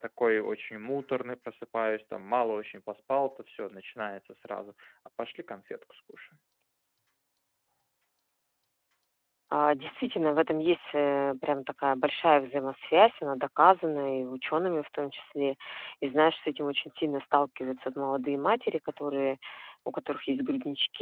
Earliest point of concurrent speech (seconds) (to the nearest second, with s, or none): none